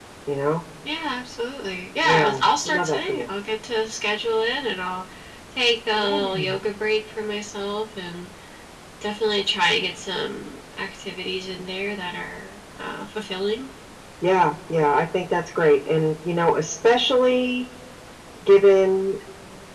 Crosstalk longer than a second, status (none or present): present